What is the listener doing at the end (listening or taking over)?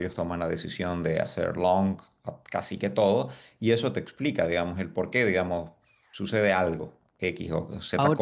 listening